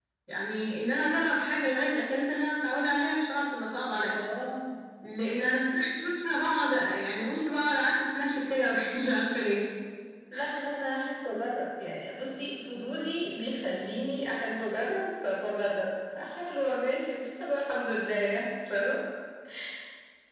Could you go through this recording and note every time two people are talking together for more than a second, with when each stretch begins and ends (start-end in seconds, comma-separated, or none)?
none